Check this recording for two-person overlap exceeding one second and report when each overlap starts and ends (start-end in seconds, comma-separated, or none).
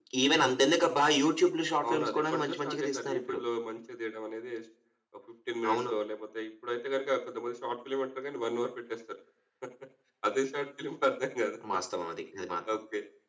1.9-3.4